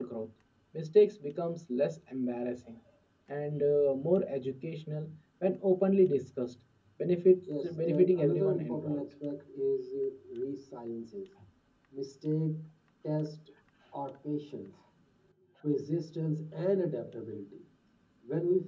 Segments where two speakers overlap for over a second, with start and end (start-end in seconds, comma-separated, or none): 7.6-9.0